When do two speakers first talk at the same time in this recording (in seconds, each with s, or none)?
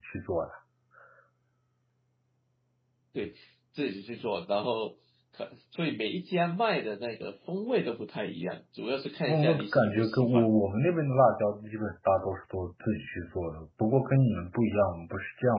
9.3 s